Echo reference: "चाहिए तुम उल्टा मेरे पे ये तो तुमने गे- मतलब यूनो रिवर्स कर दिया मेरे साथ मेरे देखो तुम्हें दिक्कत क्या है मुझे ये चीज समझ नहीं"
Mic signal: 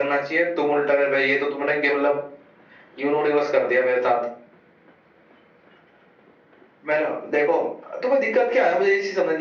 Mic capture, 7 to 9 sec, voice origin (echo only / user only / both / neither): echo only